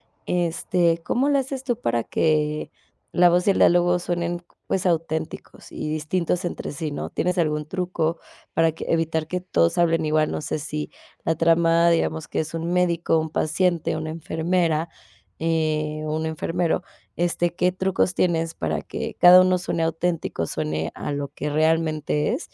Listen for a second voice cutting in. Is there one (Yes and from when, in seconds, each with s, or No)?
No